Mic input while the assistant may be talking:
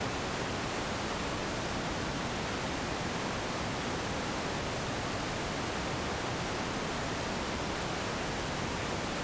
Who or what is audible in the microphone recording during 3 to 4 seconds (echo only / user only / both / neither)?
neither